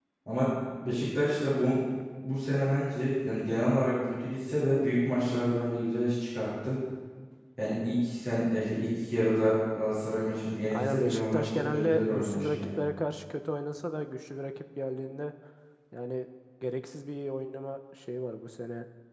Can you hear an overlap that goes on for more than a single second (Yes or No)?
Yes